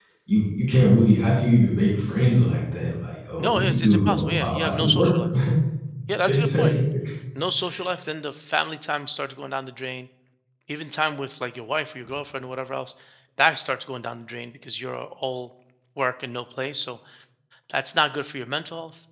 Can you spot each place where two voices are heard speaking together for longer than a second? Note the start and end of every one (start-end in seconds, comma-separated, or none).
3.4-5.2